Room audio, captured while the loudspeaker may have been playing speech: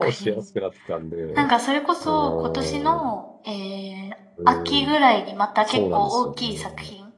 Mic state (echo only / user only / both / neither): both